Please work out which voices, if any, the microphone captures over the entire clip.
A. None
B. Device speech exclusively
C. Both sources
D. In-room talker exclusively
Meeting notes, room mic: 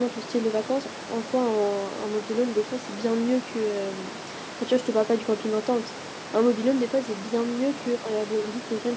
D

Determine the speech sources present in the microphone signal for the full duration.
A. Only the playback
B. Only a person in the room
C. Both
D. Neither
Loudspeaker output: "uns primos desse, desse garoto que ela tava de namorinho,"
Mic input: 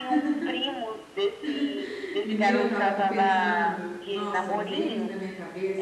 C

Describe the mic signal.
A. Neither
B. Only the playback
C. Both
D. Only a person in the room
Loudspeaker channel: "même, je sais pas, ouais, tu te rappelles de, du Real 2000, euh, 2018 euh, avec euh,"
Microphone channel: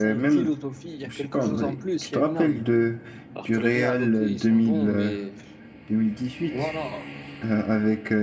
C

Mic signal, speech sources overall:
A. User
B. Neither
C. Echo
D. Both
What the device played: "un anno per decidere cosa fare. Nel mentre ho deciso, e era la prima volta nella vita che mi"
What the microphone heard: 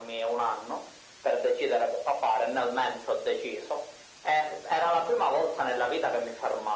C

